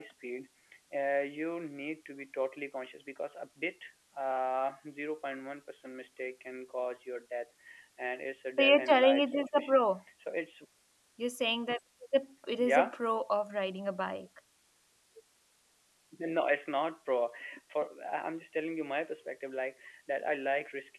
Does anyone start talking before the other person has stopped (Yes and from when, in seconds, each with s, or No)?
Yes, from 8.6 s